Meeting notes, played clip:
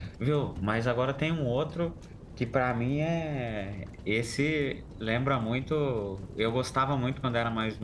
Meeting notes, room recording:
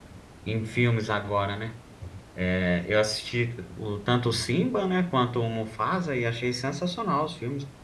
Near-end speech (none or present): present